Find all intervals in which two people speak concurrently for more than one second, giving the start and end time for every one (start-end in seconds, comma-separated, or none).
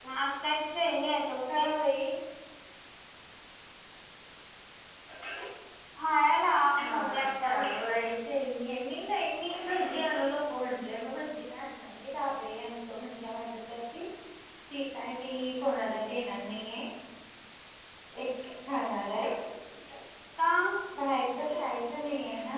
6.8-8.0